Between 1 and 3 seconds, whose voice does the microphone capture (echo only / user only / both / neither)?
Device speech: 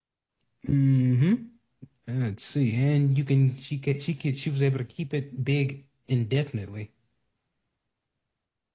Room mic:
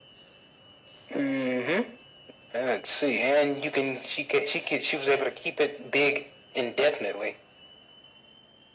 echo only